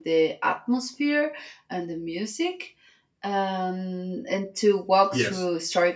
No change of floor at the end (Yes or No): Yes